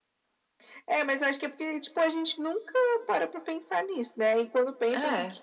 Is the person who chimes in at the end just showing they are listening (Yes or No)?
Yes